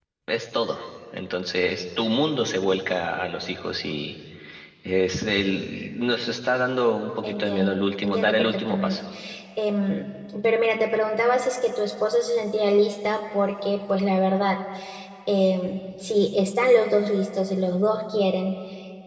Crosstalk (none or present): present